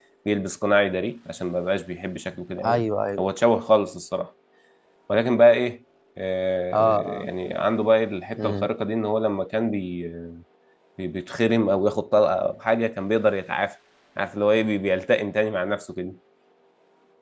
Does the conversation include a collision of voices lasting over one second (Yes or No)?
No